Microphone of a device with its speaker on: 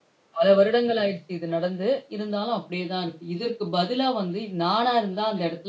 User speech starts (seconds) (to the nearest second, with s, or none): none